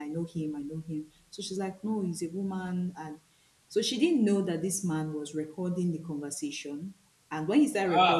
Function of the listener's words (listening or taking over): listening